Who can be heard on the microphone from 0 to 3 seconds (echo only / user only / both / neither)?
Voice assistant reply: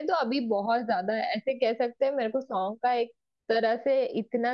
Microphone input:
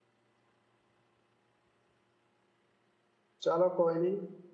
neither